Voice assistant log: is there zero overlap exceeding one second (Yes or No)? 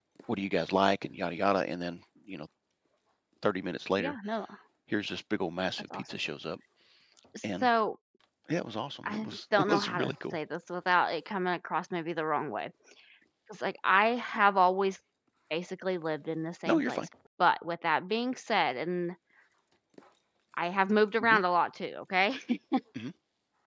No